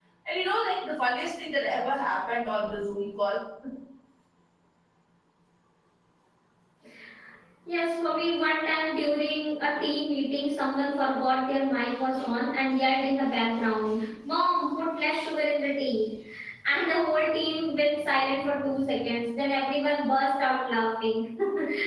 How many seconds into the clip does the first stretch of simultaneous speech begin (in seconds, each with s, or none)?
none